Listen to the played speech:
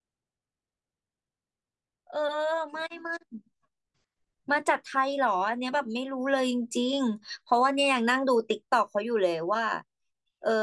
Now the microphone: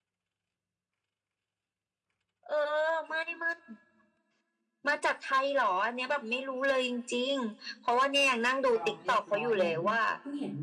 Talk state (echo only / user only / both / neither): both